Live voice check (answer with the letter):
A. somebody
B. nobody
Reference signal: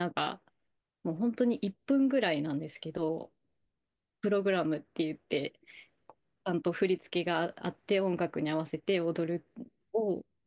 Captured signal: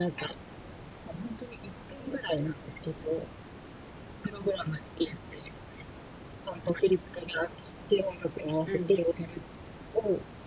A